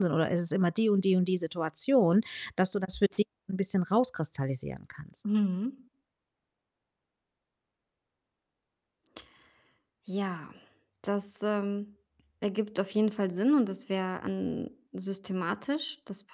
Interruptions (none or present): none